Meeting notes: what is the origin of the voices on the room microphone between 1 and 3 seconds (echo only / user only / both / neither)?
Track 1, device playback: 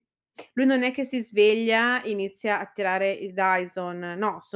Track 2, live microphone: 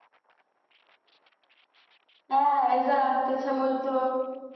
user only